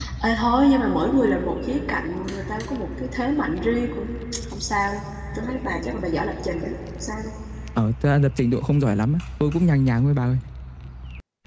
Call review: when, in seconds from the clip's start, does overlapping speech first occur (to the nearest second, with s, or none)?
none